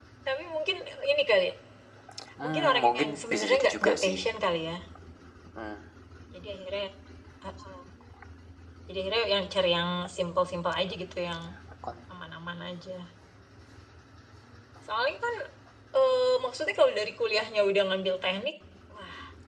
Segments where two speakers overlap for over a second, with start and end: 2.4-4.2

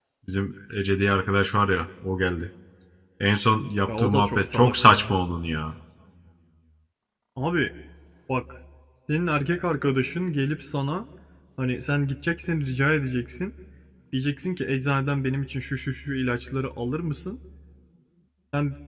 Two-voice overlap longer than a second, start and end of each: 3.9-5.2

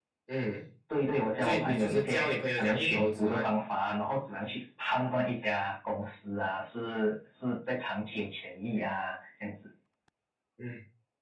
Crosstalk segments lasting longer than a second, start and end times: 1.4-3.5

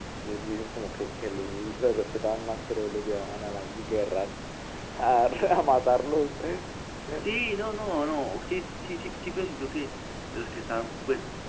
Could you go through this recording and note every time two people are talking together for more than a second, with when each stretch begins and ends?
none

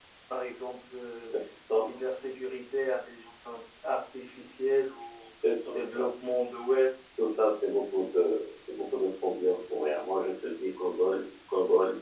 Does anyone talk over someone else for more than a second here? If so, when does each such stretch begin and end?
none

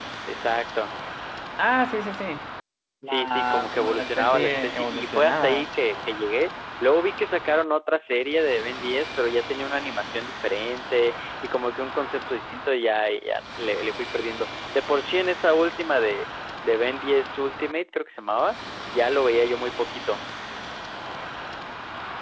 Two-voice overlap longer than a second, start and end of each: 3.1-5.7

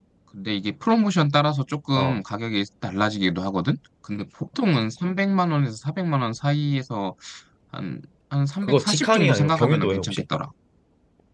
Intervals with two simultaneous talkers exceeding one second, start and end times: 8.6-10.2

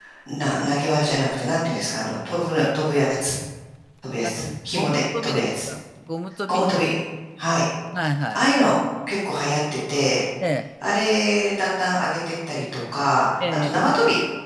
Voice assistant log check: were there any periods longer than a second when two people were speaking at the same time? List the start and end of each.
4.2-5.5

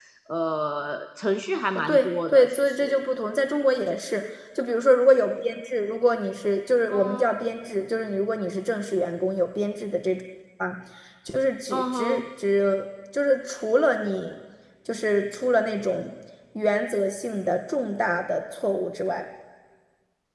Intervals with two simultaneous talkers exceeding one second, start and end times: 1.8-3.0

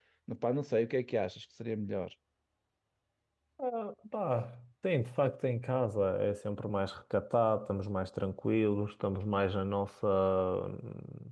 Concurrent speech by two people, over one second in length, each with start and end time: none

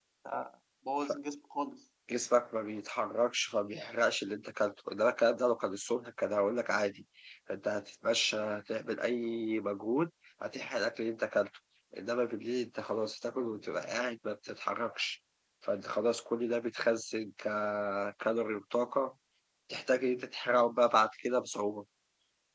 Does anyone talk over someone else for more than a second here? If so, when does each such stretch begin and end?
none

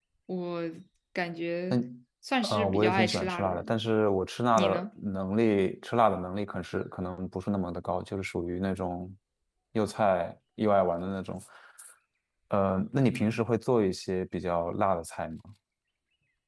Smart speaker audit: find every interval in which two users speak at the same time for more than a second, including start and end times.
2.4-3.8

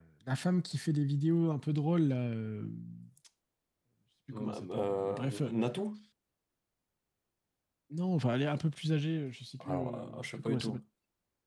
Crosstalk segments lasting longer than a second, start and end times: 4.3-5.5, 9.6-10.8

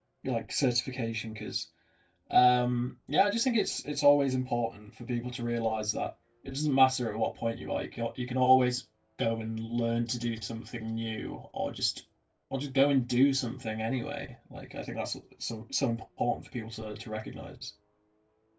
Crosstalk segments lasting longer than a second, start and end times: none

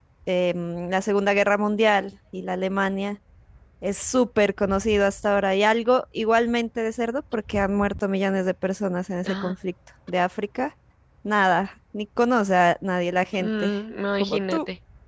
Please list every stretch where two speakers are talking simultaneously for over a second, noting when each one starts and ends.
none

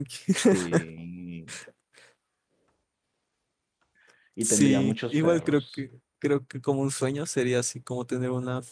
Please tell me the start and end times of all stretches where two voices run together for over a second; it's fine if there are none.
4.4-5.8

